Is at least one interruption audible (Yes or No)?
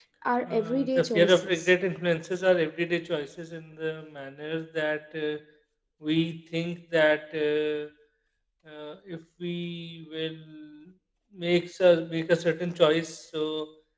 Yes